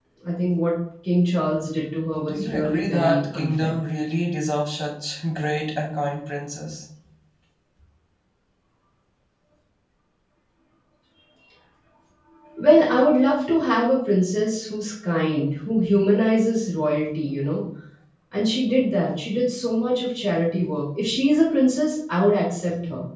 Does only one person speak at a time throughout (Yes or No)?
No